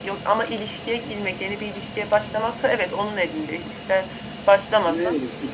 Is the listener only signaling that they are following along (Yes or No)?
No